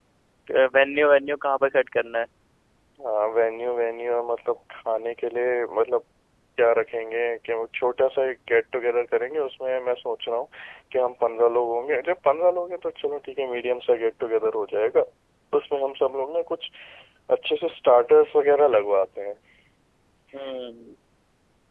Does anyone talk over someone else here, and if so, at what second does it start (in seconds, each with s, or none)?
none